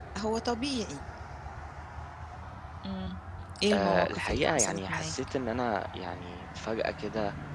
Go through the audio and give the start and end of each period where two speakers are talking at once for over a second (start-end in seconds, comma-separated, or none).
3.7-5.2